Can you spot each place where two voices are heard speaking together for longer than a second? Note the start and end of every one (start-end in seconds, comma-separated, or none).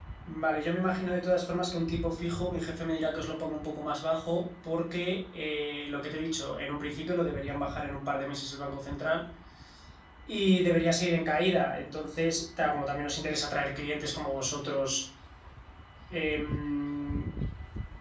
none